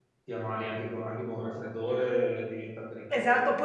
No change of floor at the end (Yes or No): No